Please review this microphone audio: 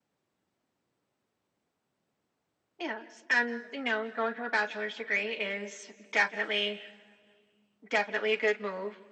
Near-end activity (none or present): none